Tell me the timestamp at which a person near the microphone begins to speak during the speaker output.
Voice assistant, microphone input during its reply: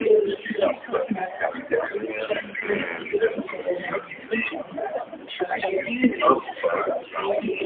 2.6 s

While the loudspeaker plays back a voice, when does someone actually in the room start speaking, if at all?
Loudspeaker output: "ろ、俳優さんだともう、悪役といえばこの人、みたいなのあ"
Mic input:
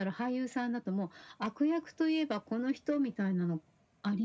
none

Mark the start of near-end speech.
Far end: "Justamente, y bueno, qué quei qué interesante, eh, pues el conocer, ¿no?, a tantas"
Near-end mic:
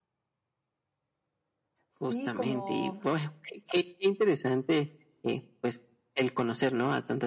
1.9 s

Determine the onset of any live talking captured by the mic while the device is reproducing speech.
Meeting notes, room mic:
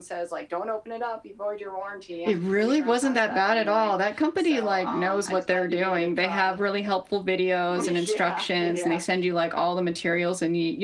2.2 s

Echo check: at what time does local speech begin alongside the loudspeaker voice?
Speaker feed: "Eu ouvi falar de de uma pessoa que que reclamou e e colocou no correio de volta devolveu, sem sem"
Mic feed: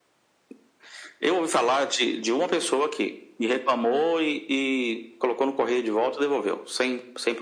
none

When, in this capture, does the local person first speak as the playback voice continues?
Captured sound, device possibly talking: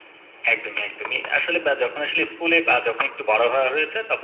none

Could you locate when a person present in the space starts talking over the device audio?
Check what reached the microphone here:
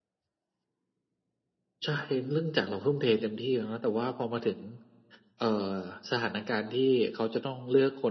none

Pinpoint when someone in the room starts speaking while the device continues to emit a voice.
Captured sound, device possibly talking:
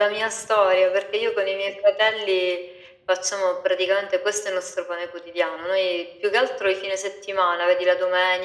none

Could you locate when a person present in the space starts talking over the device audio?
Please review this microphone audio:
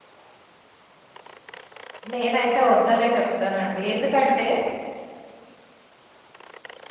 2.1 s

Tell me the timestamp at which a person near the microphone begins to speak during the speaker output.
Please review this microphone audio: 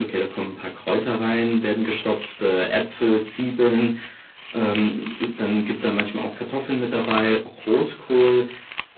none

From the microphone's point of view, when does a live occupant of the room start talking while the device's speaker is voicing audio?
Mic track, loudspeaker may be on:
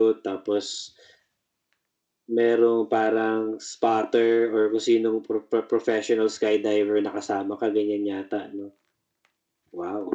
none

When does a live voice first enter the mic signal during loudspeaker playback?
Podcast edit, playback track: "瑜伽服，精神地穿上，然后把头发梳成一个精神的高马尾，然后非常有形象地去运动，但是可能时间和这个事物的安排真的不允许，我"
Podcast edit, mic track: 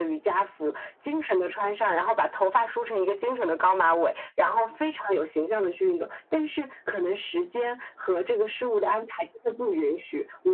none

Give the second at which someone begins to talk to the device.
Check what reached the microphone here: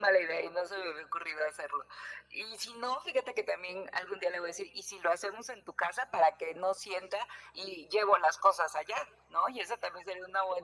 none

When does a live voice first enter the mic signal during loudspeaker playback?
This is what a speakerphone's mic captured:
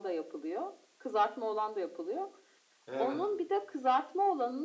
2.9 s

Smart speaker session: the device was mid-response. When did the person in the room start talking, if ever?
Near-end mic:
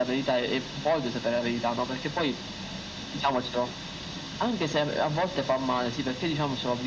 none

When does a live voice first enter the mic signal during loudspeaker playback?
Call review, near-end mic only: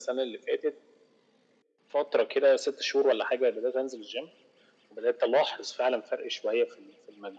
none

